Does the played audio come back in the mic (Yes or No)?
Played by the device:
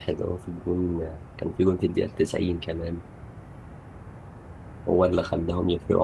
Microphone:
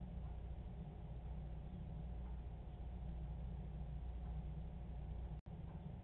No